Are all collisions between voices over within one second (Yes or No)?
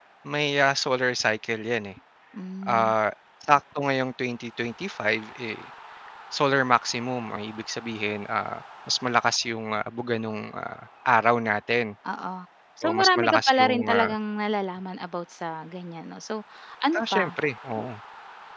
No